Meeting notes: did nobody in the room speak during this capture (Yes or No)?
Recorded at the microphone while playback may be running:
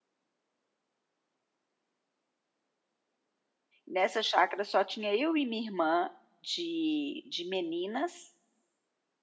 No